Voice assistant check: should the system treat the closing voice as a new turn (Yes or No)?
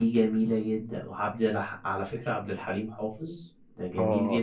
Yes